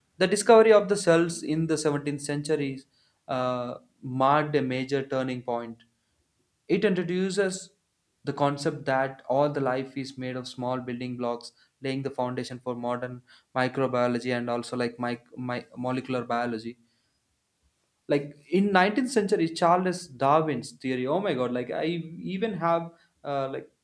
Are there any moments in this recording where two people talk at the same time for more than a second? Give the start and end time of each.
none

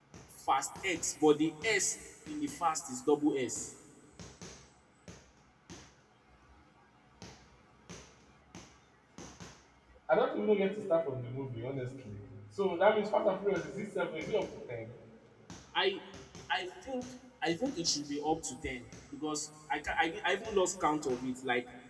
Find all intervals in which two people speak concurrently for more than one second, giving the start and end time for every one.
none

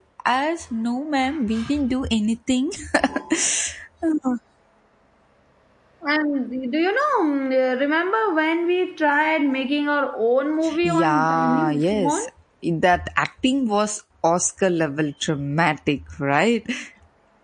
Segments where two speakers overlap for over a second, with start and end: 10.8-12.2

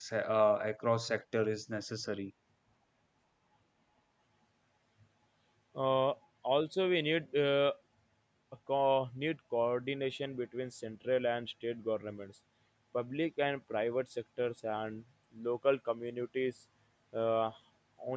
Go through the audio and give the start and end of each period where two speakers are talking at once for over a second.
none

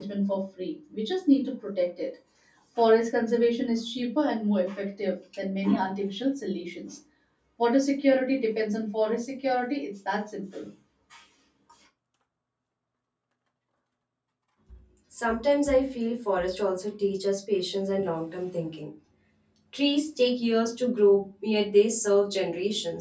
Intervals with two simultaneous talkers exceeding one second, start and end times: none

